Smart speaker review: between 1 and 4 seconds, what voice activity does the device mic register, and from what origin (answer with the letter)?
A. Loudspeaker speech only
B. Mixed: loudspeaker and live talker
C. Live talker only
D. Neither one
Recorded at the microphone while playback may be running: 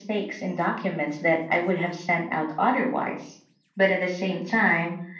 A